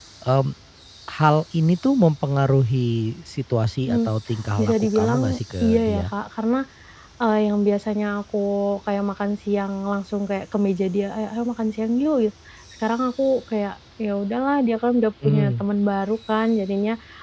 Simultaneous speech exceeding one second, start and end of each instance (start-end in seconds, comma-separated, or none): 4.6-6.0